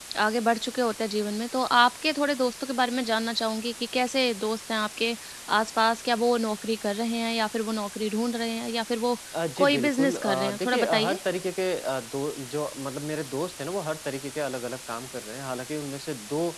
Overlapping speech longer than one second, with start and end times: 9.6-11.2

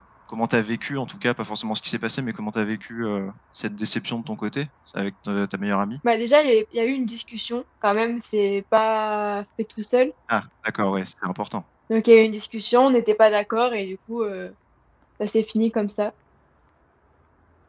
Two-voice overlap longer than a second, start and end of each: none

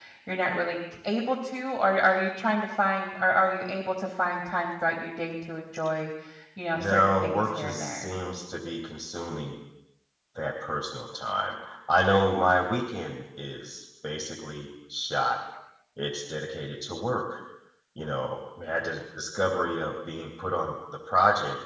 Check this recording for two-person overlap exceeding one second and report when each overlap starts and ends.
6.7-8.1

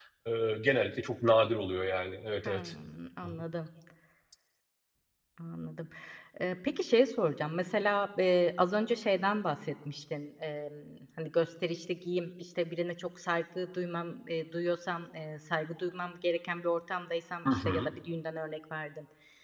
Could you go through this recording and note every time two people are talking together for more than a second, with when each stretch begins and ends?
none

